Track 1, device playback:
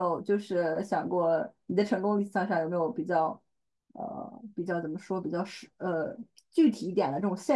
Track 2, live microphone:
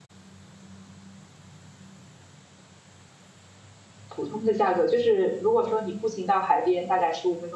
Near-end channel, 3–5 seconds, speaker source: user only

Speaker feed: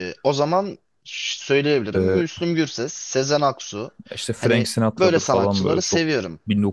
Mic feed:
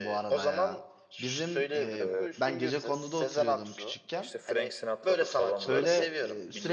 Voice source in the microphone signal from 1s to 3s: both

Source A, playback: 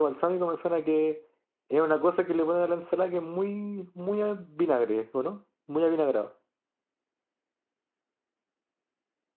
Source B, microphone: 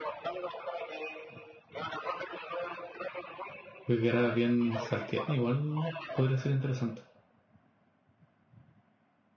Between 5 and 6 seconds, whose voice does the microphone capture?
both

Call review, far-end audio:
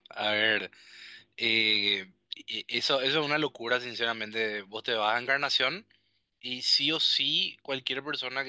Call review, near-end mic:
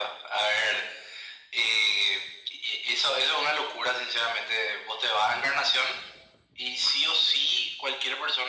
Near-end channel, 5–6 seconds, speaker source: echo only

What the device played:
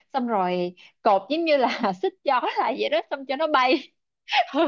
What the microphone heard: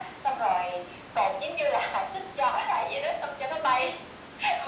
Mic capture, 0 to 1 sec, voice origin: echo only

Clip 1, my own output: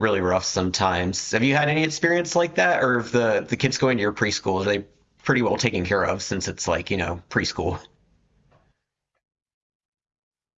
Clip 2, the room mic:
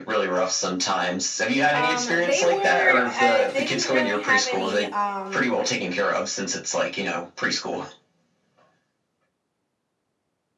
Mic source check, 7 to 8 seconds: echo only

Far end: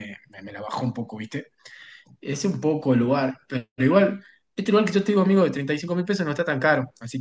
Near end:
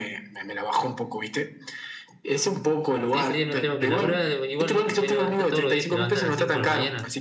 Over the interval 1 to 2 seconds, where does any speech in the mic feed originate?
echo only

